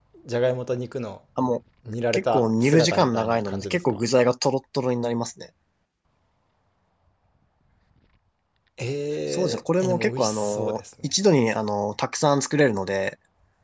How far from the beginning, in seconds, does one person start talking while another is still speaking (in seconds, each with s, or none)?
2.1 s